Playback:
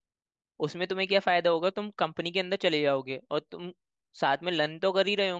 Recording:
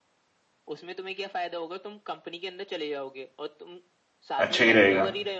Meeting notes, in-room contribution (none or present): present